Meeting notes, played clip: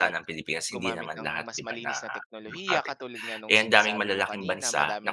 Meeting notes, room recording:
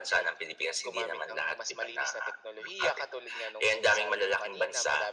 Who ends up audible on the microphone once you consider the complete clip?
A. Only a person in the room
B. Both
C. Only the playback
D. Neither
C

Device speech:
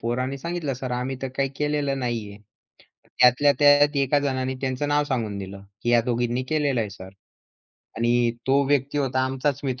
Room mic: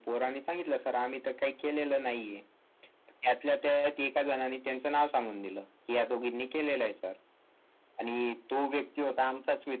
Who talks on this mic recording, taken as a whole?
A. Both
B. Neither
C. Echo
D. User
C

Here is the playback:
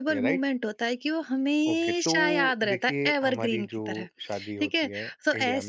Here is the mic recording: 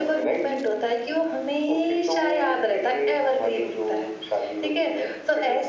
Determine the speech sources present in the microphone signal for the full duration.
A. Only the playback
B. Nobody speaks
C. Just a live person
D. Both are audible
A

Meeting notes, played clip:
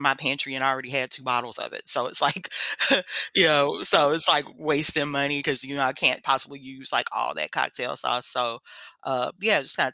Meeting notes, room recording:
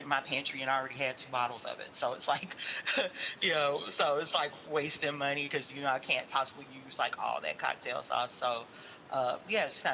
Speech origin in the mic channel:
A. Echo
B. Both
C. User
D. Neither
A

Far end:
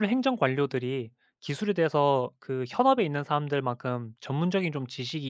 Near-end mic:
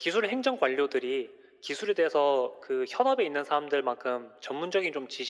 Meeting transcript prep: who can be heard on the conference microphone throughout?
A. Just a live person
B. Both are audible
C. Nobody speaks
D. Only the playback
D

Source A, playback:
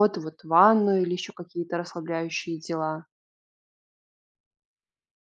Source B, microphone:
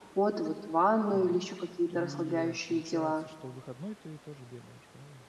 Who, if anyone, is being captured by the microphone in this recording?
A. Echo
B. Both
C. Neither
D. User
B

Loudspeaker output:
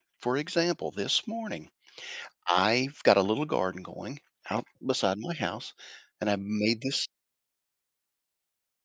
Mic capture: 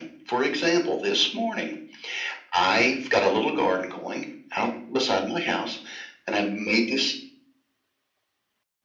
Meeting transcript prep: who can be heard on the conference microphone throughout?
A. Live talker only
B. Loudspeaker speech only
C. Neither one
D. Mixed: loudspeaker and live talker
B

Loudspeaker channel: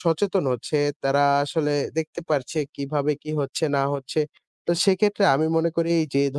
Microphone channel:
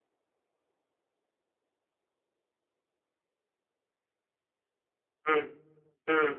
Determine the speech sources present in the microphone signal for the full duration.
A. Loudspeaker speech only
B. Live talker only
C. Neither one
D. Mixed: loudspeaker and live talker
B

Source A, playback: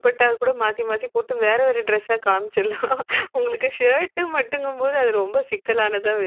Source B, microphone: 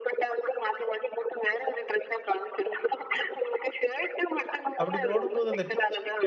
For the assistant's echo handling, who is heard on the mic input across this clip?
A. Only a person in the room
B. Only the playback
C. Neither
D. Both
D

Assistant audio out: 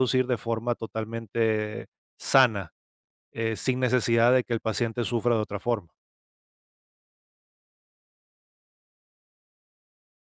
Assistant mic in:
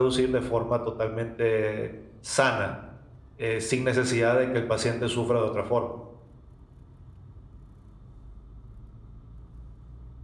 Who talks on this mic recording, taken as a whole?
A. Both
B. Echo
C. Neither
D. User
B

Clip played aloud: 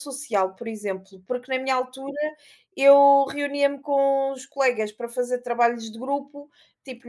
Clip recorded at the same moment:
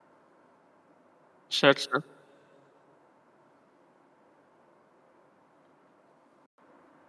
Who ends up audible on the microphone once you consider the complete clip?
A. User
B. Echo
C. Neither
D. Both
A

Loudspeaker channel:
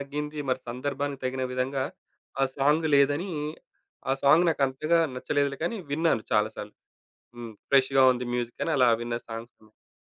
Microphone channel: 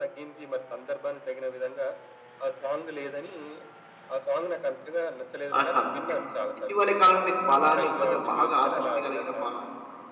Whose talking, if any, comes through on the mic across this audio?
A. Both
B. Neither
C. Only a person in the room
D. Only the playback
A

